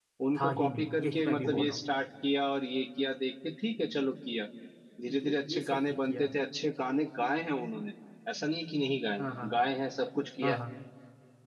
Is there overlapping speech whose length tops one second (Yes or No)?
Yes